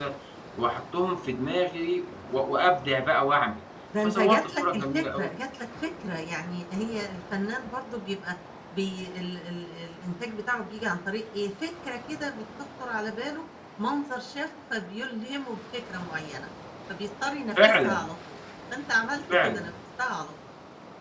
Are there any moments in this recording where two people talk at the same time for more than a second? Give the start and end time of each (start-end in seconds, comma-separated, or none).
4.0-5.3